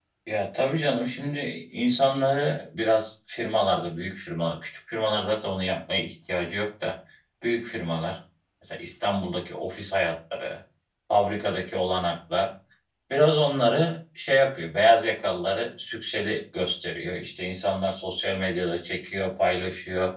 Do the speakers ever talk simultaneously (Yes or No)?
No